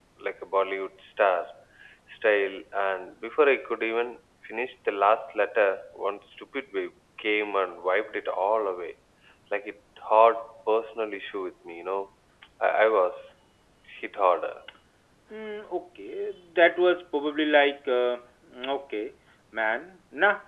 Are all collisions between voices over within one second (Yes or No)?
Yes